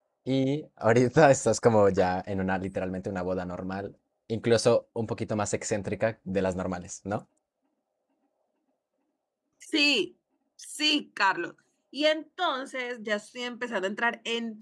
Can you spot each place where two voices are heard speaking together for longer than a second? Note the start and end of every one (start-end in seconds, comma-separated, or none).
none